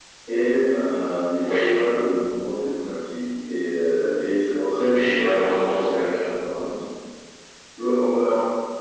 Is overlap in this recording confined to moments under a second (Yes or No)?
No